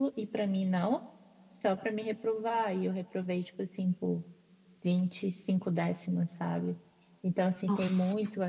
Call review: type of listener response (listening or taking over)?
listening